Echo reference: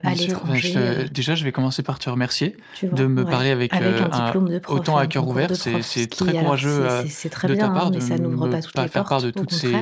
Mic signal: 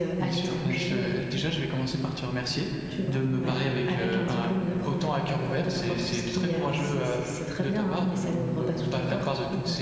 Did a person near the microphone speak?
No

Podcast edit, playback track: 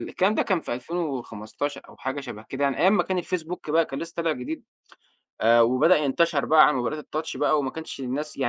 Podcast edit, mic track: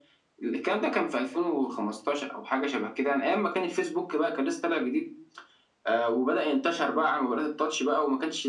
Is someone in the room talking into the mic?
No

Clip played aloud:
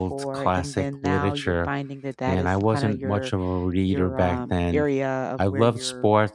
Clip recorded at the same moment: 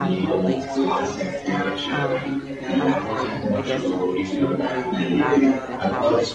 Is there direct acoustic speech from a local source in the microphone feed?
Yes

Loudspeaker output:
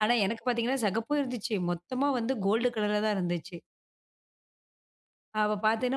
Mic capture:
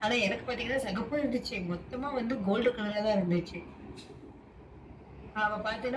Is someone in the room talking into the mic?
No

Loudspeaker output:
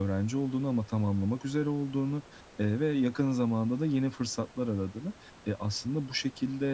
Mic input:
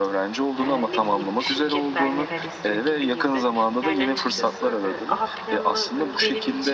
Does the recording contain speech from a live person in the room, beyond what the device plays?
Yes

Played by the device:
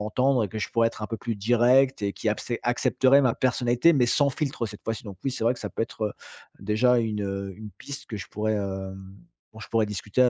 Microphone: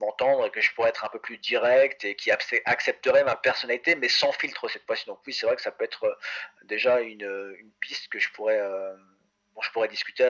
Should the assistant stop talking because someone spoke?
No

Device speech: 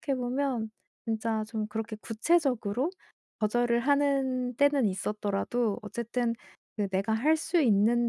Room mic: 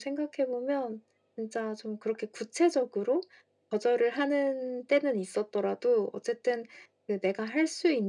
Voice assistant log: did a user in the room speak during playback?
No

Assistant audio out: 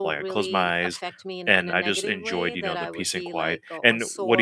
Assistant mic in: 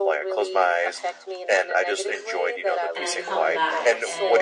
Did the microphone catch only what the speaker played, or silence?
No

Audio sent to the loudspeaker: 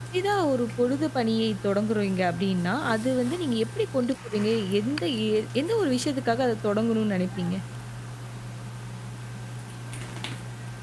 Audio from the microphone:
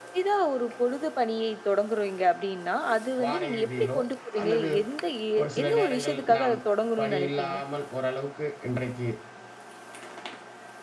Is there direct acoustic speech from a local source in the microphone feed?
Yes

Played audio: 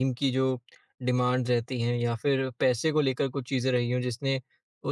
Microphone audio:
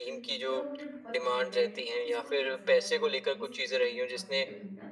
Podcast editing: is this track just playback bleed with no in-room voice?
No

